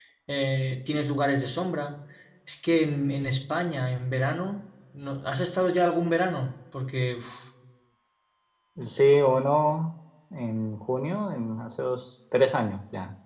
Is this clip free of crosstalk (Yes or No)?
Yes